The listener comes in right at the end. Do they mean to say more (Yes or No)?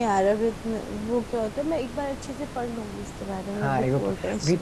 Yes